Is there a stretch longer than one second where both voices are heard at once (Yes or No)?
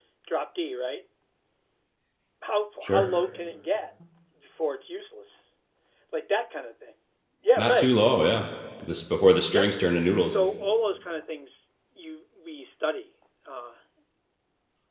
No